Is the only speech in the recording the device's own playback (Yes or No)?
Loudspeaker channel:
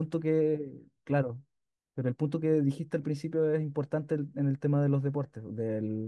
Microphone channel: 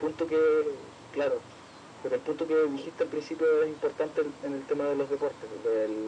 Yes